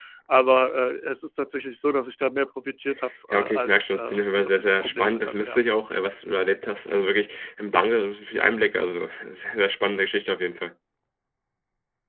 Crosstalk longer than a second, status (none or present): present